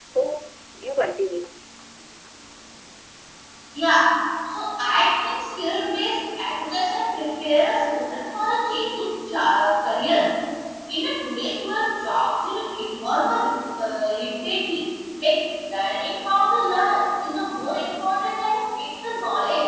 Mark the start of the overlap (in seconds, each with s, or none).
none